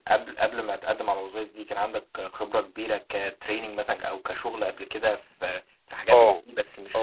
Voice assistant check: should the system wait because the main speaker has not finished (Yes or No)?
No